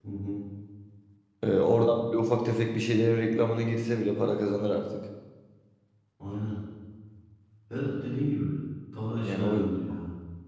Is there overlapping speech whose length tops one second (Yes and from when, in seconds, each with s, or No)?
No